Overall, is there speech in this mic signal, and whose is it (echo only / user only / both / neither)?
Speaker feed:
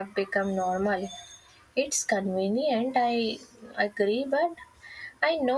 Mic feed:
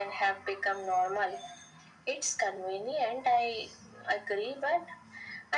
echo only